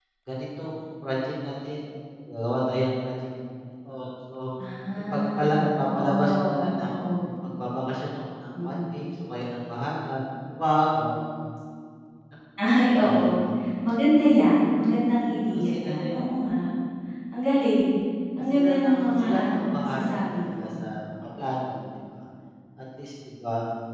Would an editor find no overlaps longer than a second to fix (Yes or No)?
No